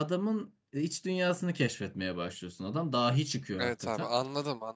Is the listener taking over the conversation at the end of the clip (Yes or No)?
Yes